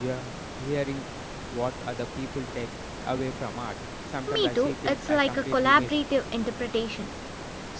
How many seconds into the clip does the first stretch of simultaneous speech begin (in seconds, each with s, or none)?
4.3 s